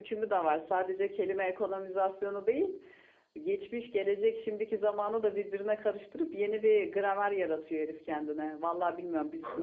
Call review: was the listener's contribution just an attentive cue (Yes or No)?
Yes